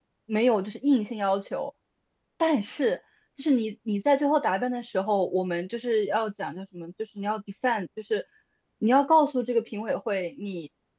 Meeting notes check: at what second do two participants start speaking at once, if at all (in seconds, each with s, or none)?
none